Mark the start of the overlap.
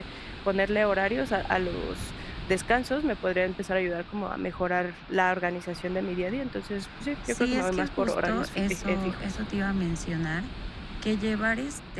7 s

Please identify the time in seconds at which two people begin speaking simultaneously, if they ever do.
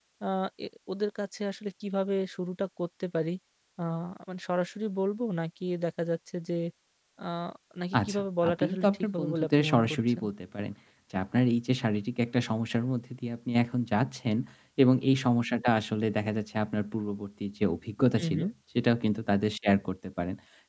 8 s

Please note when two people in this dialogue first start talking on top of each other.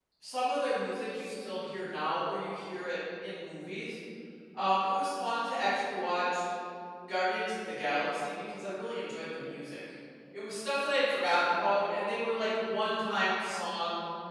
none

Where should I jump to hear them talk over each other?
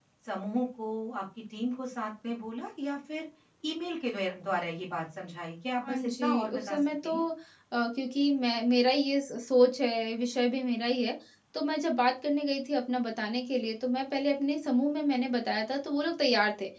6 s

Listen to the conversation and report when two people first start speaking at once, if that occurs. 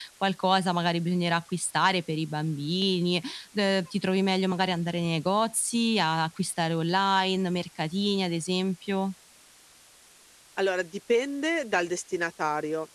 none

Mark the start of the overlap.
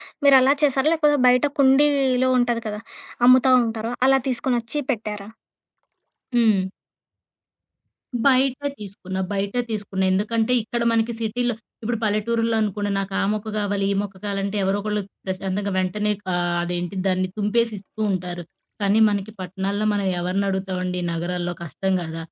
none

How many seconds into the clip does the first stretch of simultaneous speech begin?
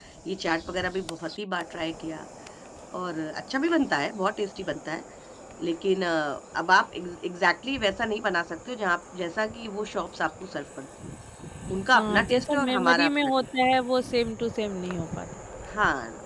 12 s

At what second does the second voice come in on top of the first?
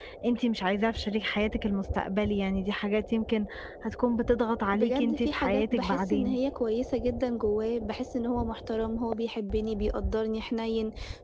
5 s

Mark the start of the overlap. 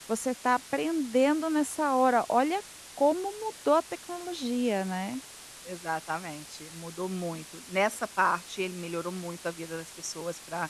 none

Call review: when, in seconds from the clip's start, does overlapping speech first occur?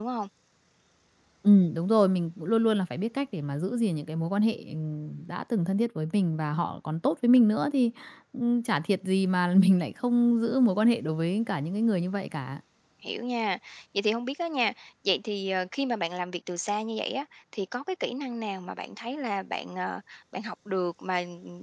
none

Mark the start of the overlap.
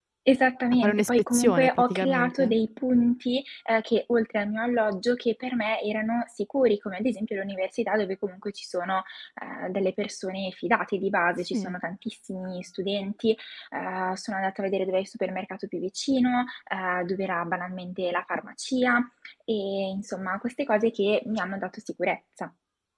1 s

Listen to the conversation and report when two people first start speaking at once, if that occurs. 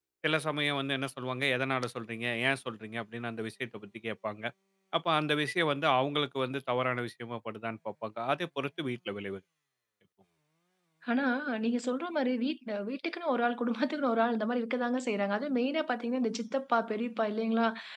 none

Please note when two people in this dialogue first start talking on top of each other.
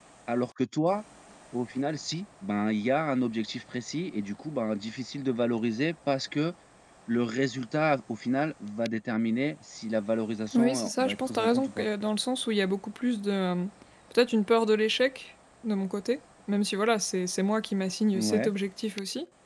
11 s

